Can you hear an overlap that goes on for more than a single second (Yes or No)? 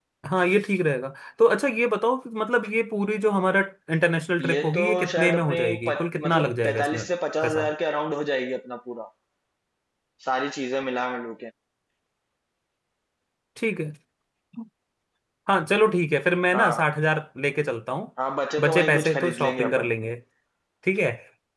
Yes